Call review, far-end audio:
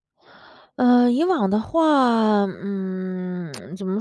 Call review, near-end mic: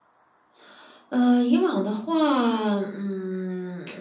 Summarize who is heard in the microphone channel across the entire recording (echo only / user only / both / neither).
echo only